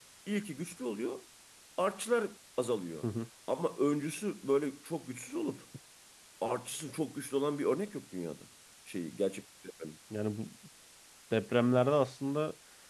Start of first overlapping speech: none

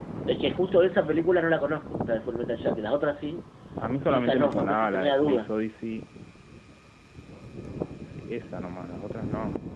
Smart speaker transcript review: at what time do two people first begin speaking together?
4.1 s

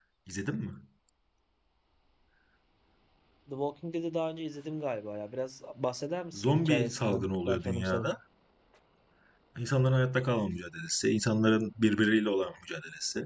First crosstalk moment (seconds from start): 6.3 s

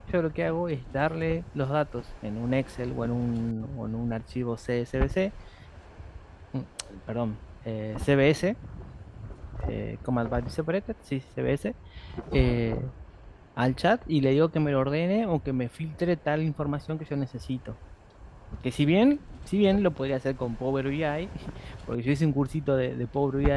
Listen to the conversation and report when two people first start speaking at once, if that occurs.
none

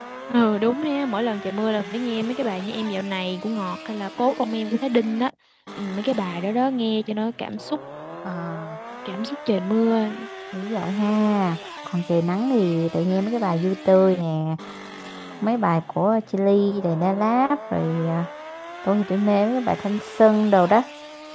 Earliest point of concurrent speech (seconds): none

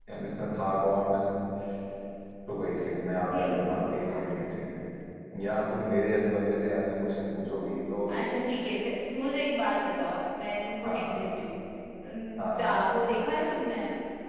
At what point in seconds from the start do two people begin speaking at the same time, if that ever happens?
3.3 s

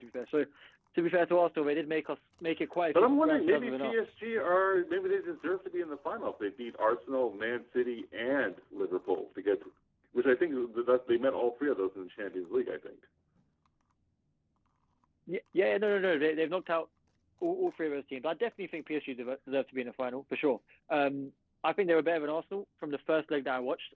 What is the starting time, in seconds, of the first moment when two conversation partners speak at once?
2.9 s

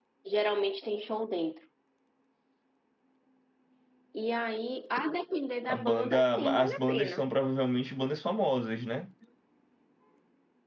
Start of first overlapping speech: 5.7 s

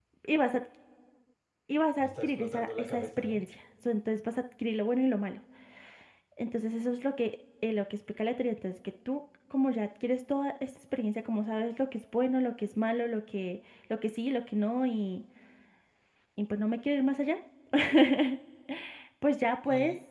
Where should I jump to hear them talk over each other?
2.0 s

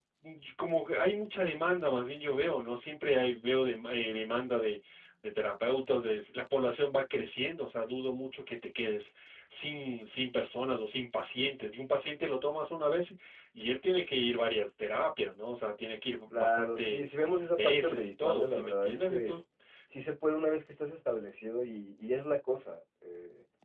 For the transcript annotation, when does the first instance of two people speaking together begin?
16.3 s

